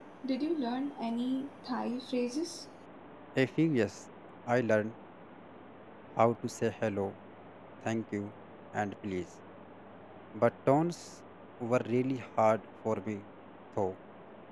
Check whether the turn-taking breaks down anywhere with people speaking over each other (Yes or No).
No